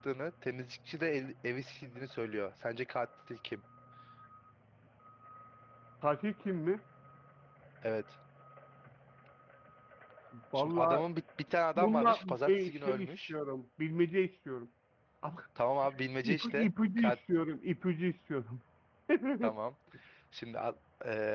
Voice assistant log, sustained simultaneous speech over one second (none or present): present